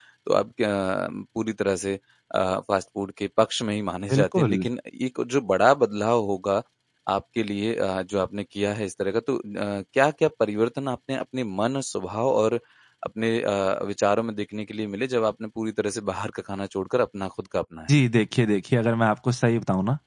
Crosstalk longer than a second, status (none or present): none